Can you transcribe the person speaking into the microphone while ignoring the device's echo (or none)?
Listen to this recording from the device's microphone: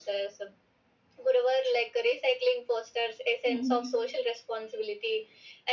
hmm